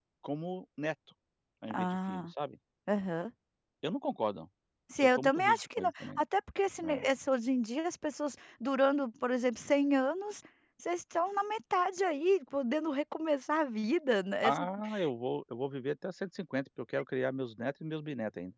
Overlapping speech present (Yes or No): Yes